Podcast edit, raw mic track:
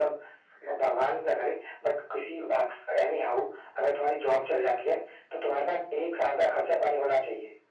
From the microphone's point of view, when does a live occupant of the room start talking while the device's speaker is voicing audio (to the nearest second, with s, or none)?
none